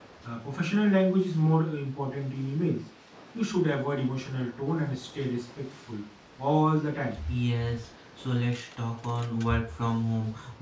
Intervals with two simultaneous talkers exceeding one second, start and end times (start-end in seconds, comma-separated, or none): none